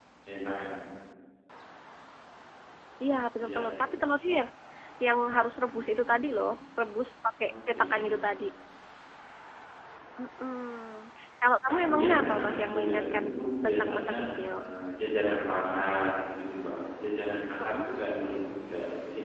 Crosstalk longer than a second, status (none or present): present